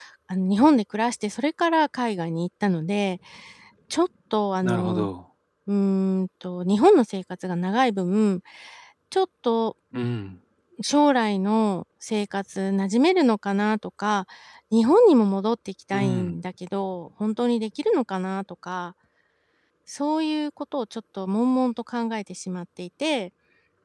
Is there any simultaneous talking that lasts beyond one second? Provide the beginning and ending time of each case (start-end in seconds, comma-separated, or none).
none